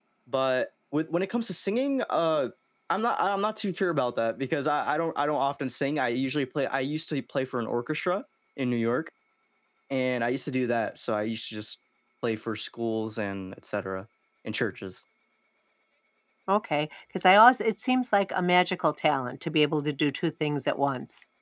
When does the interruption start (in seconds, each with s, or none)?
none